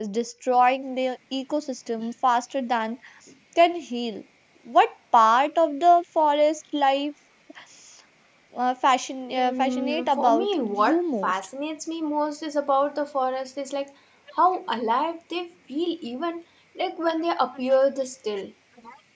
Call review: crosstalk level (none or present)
present